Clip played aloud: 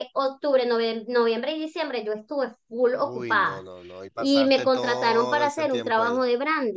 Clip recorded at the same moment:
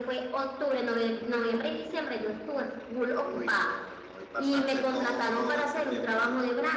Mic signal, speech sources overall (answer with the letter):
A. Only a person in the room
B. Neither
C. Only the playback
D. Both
C